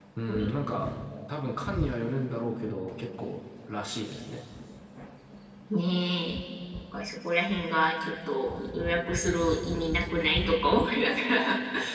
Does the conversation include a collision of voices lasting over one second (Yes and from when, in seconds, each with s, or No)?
No